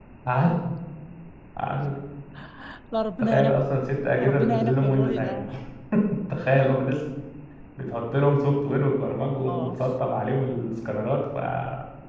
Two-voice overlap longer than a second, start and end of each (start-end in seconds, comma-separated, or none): 4.2-5.5